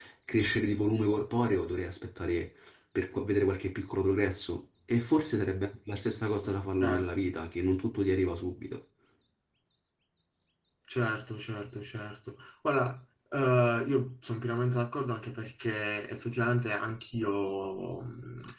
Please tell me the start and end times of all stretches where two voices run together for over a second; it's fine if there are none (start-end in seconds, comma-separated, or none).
none